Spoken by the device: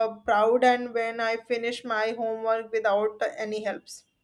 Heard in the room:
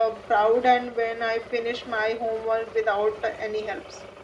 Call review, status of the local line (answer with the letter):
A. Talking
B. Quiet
B